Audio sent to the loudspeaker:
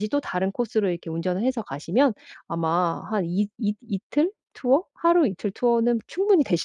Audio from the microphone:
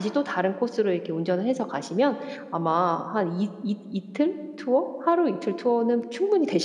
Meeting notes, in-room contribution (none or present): none